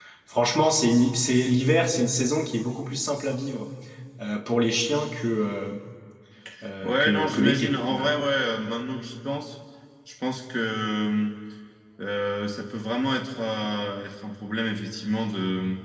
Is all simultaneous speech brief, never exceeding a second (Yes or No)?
No